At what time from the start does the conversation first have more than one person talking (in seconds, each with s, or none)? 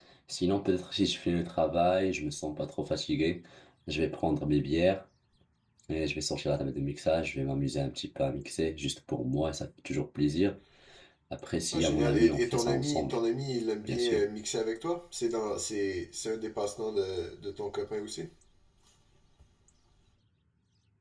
11.7 s